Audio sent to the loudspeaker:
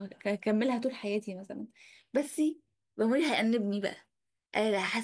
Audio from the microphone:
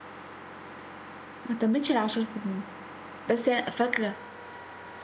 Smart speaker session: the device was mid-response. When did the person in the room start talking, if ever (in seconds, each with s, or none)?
1.4 s